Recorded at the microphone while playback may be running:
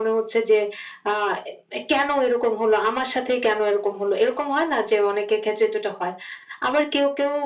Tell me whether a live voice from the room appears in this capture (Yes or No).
No